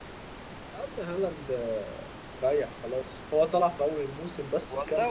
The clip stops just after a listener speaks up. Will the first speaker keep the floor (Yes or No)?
No